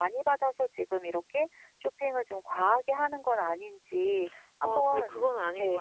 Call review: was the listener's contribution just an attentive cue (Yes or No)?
No